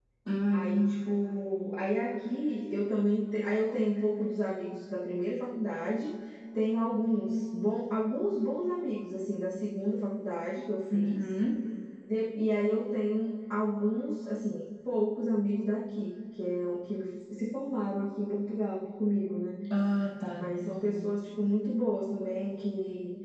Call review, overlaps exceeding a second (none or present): none